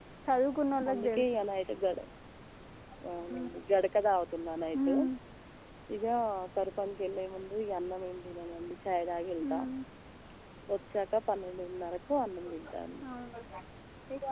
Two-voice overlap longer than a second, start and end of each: none

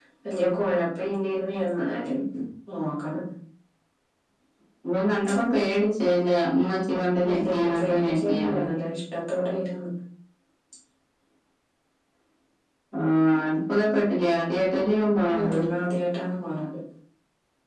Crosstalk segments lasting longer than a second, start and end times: 7.3-8.7

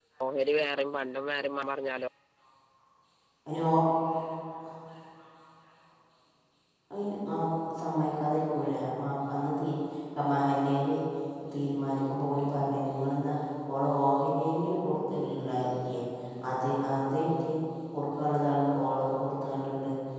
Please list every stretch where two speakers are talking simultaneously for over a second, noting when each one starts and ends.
none

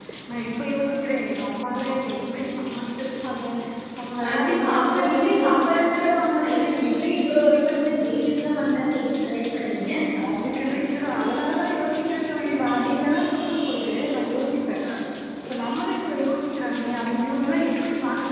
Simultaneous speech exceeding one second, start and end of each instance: 4.2-5.8

